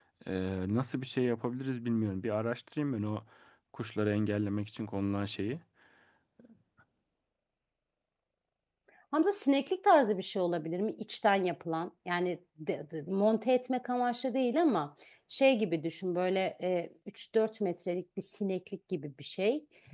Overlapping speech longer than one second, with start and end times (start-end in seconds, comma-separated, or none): none